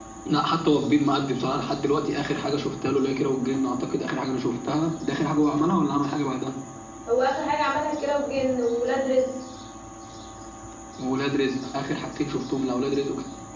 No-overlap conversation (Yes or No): Yes